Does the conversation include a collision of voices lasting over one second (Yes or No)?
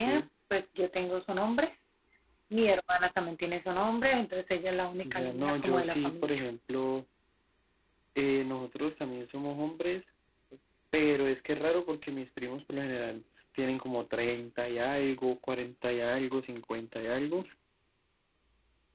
Yes